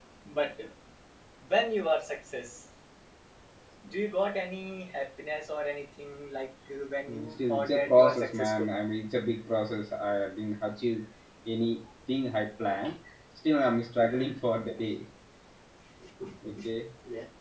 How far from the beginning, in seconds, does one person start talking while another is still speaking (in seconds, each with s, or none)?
7.1 s